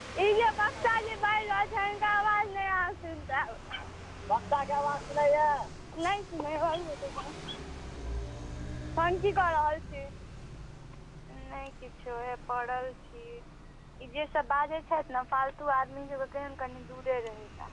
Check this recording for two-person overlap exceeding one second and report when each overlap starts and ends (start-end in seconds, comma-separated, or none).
none